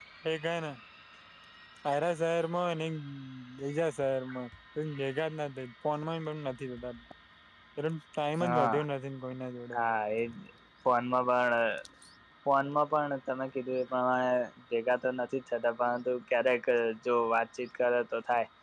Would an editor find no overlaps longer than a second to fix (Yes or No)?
Yes